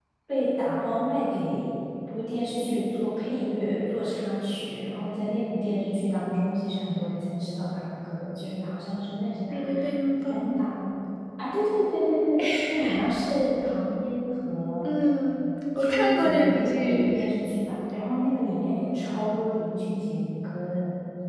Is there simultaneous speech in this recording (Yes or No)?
Yes